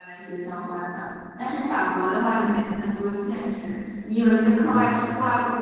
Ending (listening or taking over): listening